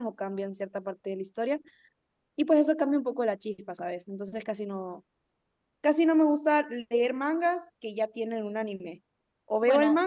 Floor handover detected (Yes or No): No